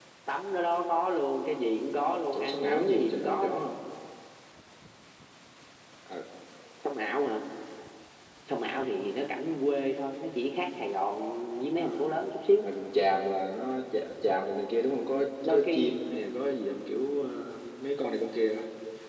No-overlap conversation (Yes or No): No